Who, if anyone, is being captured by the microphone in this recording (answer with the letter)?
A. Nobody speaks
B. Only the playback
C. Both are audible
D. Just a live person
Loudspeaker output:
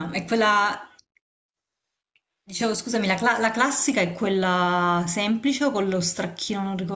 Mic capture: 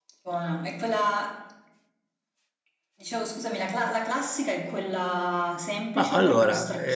C